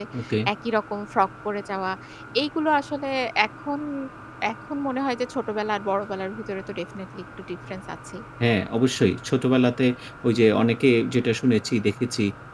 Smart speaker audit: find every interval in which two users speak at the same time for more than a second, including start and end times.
none

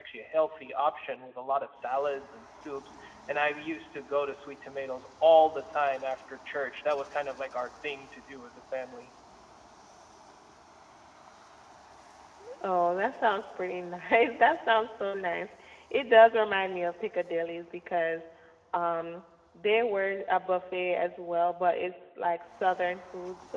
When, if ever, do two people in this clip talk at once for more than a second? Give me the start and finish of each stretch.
none

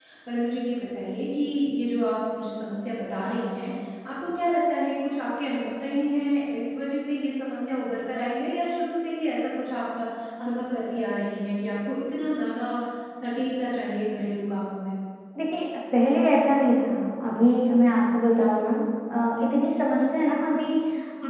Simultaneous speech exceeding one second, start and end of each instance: none

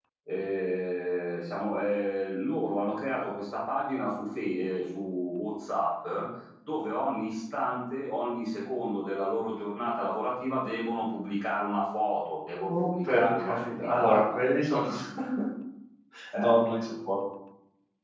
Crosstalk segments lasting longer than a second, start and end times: 12.7-14.4

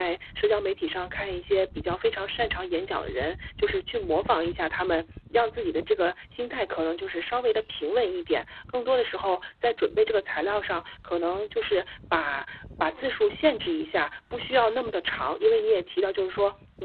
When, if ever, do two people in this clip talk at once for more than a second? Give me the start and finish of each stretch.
none

